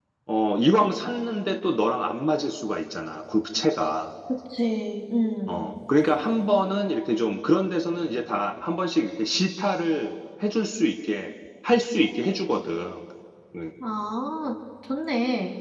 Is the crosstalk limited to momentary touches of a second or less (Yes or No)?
Yes